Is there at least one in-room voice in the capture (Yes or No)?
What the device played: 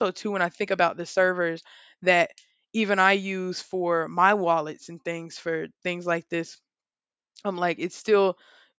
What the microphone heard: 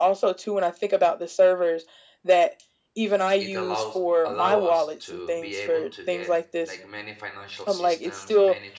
Yes